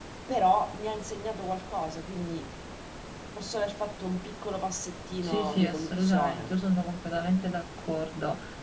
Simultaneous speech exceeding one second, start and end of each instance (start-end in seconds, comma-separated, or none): 5.2-6.5